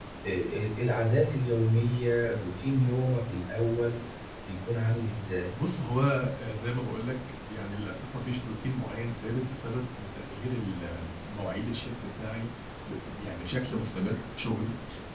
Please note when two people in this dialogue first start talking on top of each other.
none

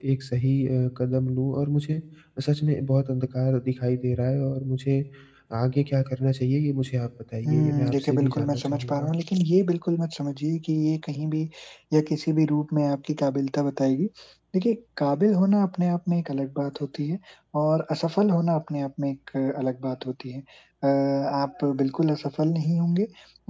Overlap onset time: 7.4 s

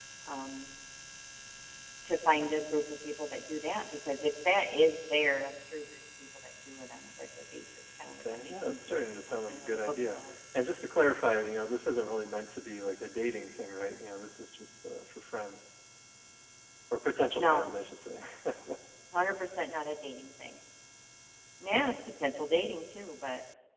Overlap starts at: 8.2 s

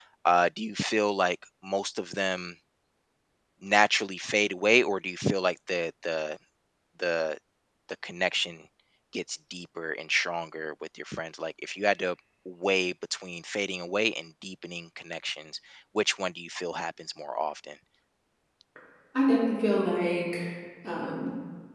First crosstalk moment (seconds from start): none

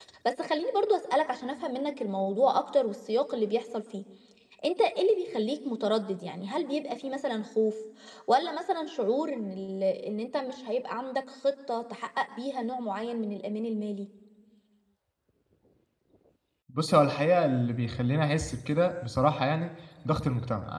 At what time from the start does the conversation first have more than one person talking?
none

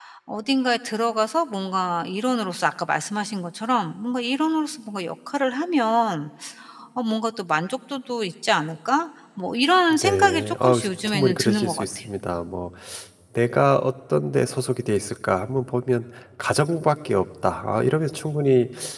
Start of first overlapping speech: 9.9 s

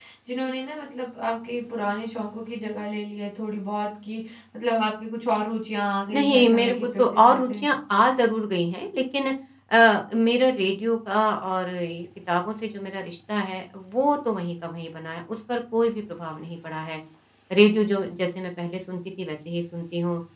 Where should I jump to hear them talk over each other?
6.1 s

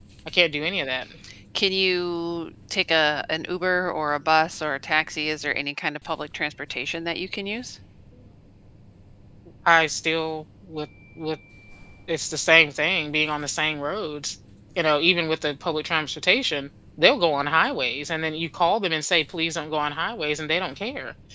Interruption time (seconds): none

